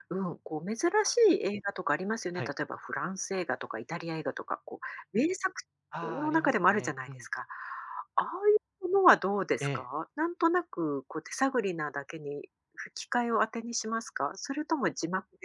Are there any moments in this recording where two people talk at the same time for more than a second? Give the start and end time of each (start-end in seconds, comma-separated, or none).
6.0-7.2